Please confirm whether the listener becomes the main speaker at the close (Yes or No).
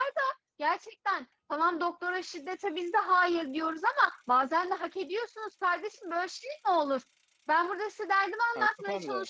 No